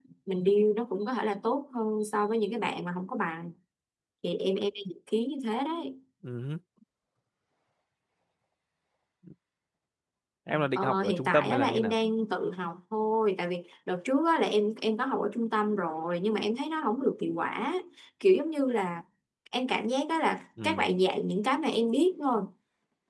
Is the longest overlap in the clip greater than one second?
Yes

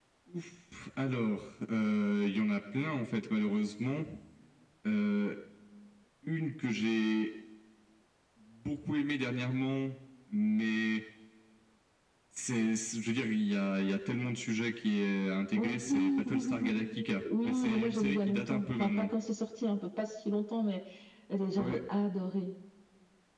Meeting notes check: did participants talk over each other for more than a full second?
Yes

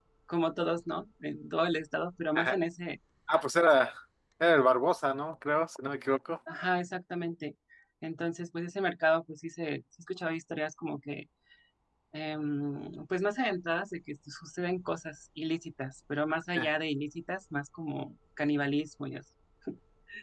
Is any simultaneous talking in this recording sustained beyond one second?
No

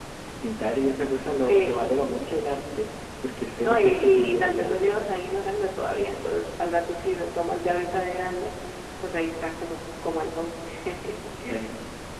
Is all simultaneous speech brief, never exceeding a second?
No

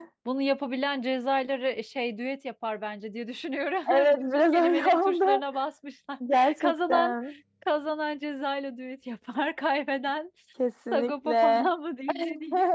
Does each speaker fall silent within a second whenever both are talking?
No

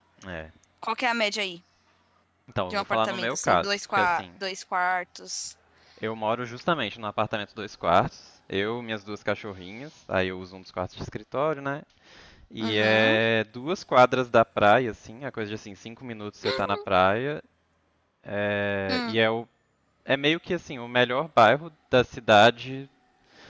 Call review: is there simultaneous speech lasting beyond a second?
Yes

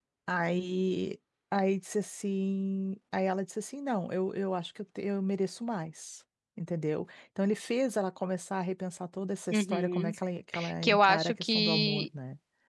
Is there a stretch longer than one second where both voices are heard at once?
Yes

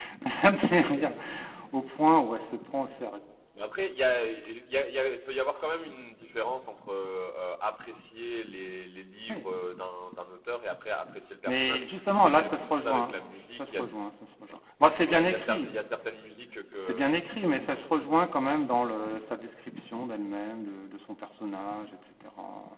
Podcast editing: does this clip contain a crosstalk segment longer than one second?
Yes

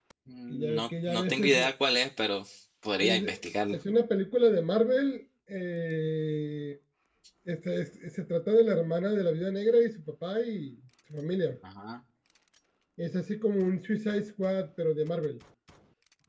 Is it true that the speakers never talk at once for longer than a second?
No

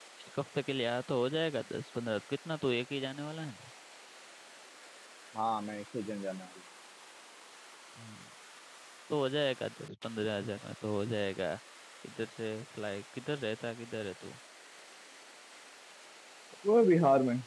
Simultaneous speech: No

